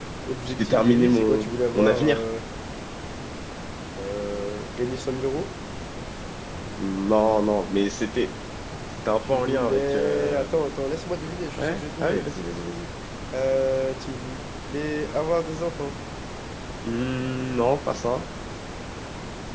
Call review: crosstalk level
present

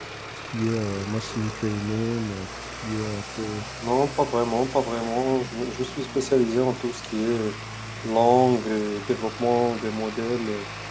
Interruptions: none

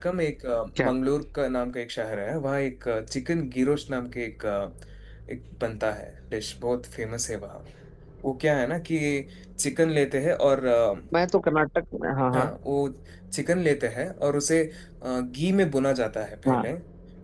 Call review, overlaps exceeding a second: none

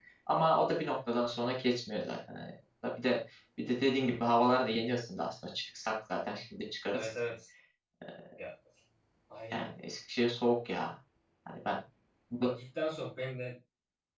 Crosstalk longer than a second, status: none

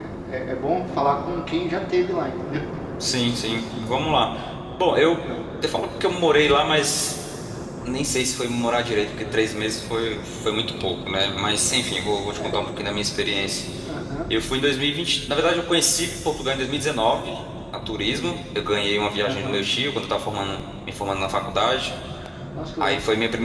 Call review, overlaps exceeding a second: none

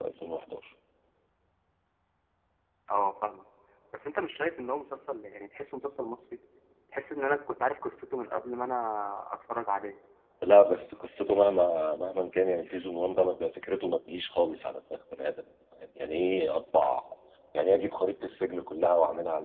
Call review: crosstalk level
none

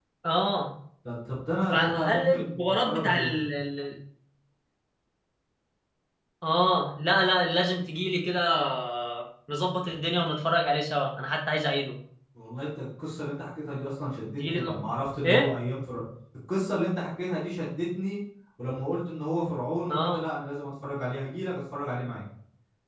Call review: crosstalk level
present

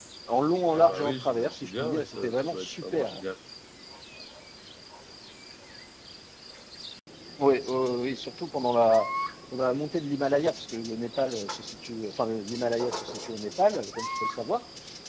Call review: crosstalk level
present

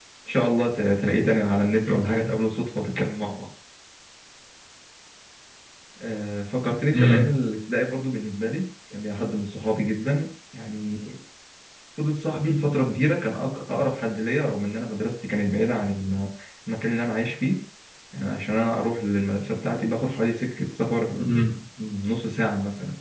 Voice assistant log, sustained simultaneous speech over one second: none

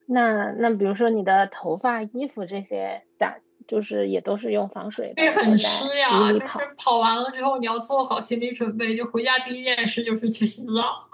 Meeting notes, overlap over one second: present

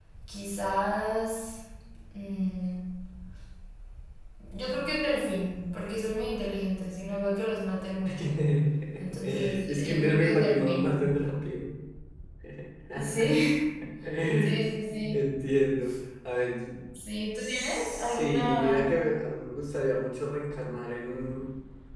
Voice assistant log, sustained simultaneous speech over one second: present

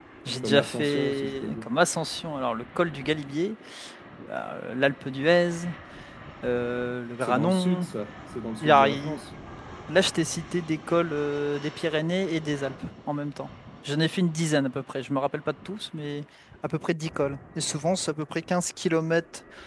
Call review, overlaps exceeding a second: present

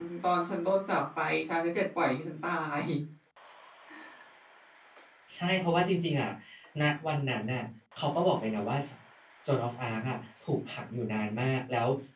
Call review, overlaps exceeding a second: none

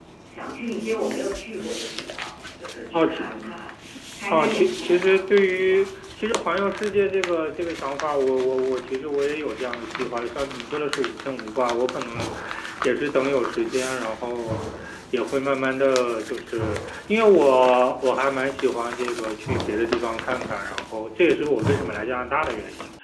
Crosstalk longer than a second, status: present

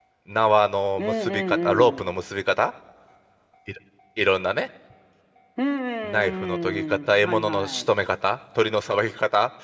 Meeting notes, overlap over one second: present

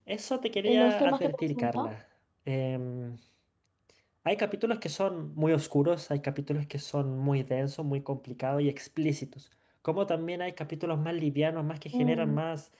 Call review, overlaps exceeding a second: present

